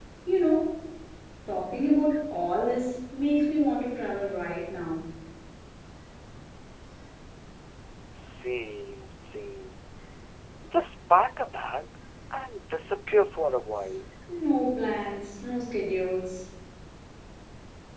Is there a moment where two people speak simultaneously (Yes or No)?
No